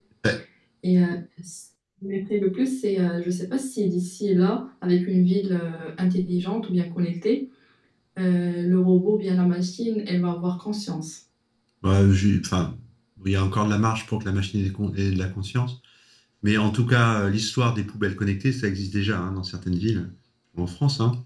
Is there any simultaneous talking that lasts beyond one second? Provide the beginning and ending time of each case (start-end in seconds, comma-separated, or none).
none